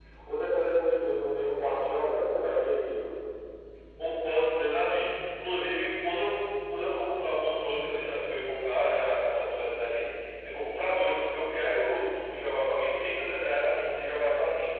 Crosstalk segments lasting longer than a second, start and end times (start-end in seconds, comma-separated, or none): none